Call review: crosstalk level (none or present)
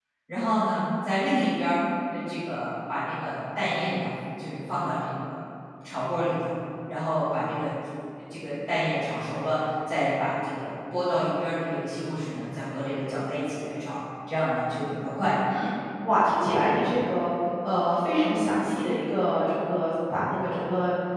none